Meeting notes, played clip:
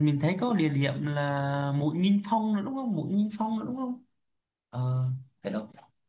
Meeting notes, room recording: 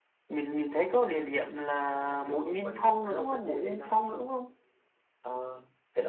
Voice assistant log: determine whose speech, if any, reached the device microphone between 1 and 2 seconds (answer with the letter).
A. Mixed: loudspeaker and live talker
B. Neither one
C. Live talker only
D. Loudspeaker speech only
D